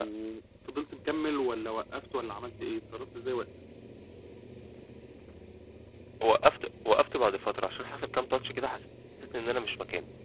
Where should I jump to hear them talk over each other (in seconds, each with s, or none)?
none